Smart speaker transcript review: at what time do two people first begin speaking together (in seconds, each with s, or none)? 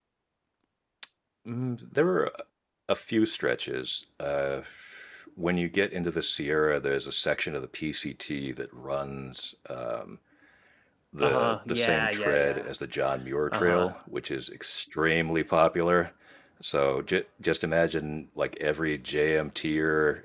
11.2 s